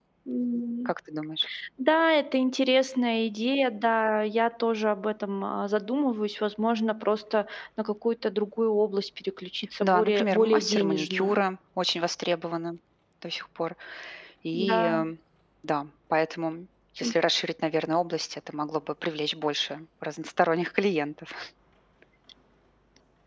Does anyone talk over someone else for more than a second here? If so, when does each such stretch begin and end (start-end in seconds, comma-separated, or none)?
9.8-11.4